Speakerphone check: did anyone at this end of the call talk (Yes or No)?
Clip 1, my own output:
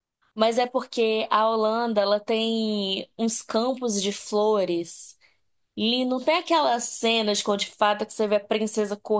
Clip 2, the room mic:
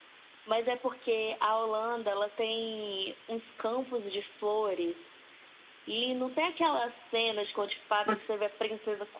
Yes